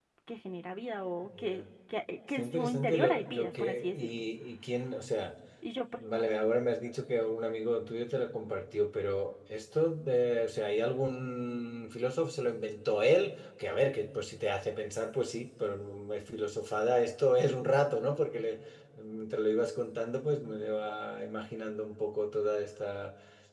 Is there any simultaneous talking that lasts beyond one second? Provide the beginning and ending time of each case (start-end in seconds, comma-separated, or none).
2.4-4.2